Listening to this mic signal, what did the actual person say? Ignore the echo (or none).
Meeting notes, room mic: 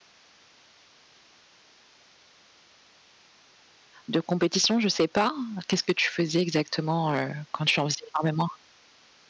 de compétition, je sais pas. Qu'est-ce que tu faisais exactement, heu, quand tu en faisais énormément?